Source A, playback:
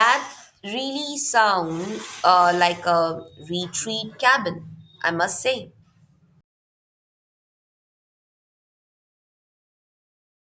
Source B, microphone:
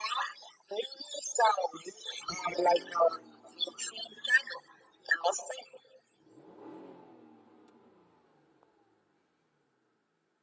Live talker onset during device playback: none

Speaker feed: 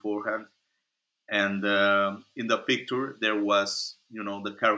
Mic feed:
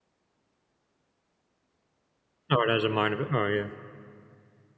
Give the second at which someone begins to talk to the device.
2.5 s

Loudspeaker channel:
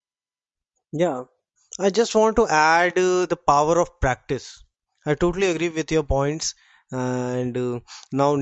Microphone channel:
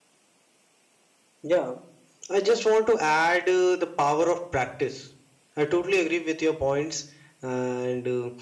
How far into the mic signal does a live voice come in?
none

